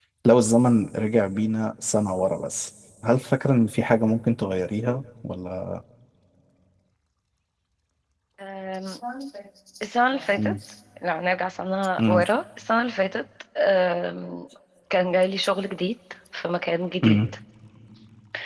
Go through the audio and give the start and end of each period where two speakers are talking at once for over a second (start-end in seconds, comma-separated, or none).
none